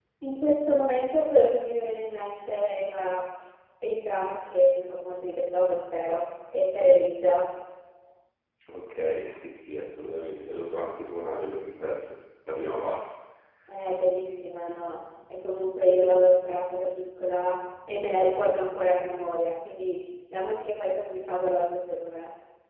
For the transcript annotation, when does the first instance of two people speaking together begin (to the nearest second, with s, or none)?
none